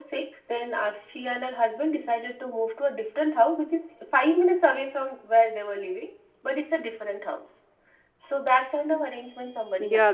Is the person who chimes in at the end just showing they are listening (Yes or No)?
No